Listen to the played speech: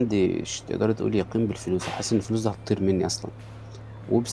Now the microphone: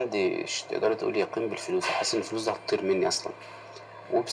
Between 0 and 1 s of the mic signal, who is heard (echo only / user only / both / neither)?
echo only